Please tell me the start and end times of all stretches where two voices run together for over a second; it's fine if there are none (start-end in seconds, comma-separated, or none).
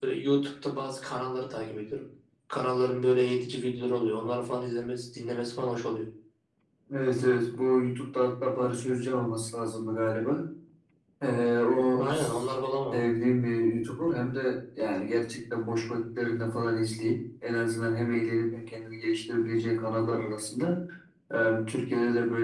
none